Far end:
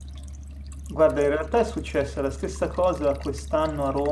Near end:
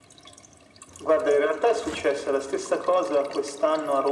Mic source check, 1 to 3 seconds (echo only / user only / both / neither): echo only